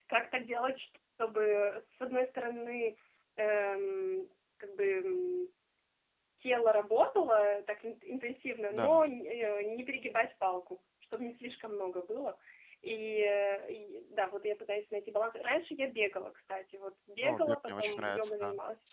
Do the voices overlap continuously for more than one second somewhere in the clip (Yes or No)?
Yes